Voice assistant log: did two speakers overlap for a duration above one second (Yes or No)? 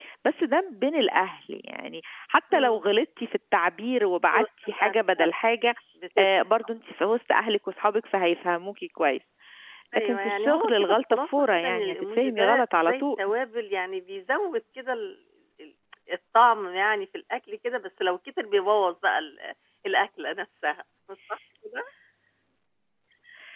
Yes